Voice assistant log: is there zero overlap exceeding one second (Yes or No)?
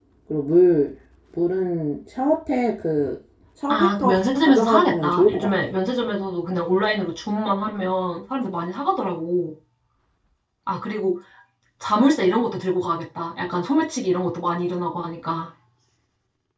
No